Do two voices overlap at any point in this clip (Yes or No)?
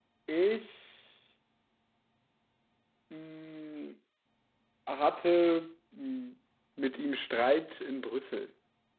No